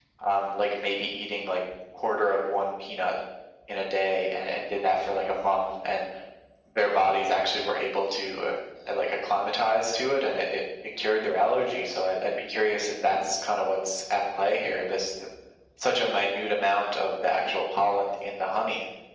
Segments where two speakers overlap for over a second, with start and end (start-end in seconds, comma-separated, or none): none